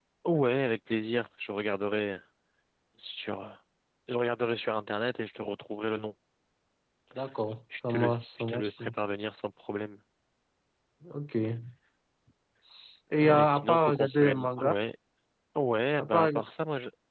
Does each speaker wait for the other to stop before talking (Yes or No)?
No